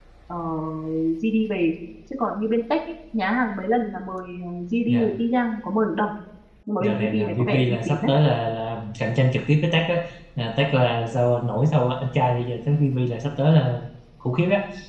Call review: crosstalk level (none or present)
present